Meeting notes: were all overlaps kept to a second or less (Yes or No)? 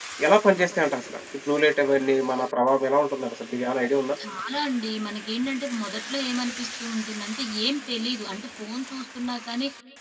Yes